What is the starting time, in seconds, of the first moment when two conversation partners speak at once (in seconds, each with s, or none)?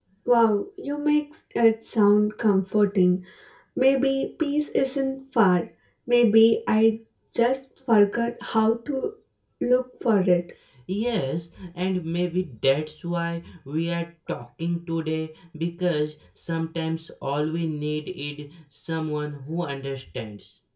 none